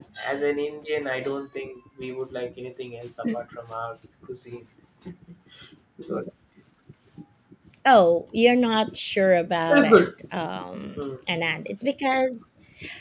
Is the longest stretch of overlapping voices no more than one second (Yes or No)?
Yes